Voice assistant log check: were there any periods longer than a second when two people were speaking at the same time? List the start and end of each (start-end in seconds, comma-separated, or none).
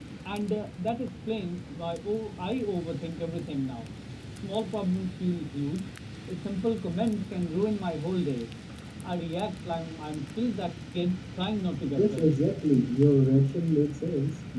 none